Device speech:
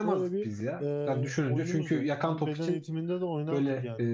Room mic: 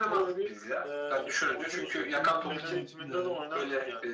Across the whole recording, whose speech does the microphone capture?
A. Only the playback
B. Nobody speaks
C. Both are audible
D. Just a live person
C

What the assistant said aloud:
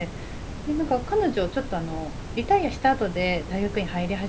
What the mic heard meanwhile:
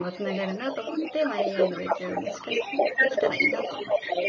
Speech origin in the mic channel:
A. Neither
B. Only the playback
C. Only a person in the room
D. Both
D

